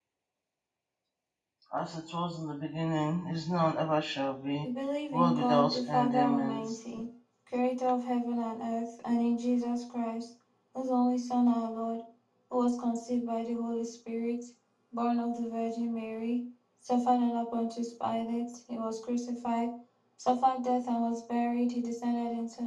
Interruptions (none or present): present